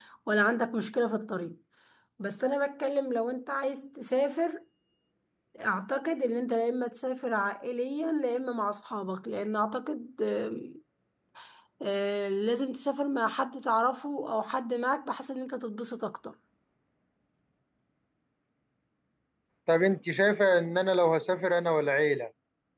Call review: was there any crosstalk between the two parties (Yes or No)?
No